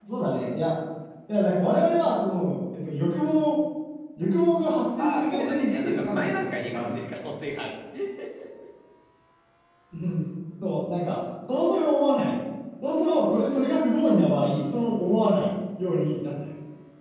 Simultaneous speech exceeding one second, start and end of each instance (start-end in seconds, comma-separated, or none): 5.0-6.9